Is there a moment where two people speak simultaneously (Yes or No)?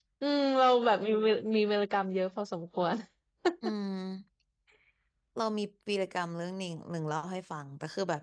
No